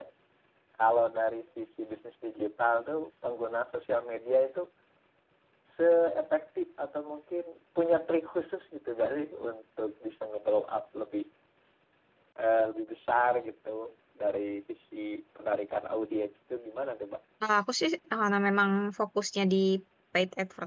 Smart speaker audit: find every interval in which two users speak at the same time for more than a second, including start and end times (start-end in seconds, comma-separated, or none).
none